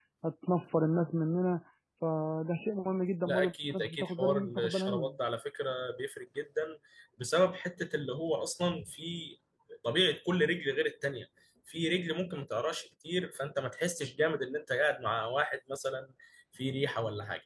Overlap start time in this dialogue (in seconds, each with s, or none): 3.3 s